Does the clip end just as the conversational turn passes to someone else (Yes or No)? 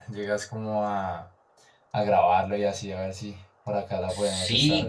Yes